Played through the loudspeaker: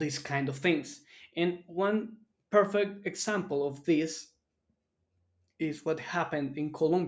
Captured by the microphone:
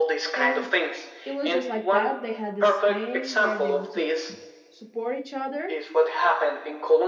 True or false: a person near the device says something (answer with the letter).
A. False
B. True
B